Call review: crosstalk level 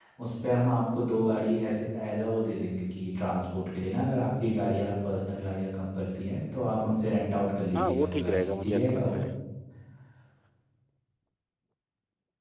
present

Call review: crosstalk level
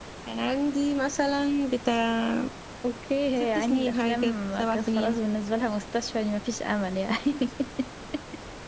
present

